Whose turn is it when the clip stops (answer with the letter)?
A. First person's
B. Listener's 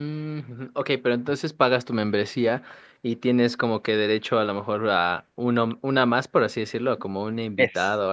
B